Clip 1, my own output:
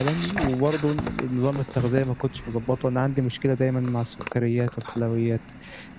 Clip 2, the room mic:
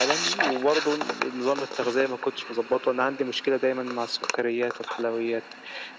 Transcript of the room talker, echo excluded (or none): none